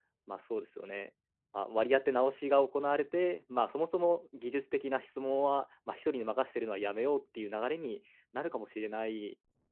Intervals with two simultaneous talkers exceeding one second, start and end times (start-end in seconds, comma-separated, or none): none